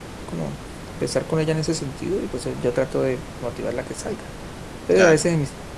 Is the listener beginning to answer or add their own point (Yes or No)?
No